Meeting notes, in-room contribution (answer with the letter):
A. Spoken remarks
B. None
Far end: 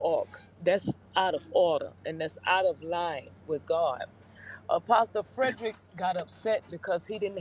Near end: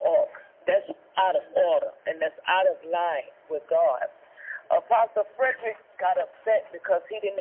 B